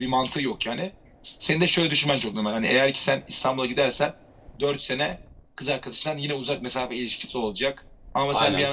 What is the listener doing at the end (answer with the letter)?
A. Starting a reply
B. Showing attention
A